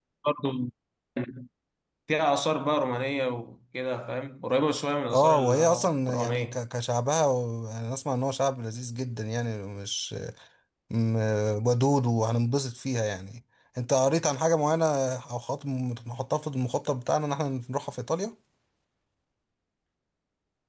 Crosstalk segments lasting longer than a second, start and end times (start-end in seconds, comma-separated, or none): 5.1-6.6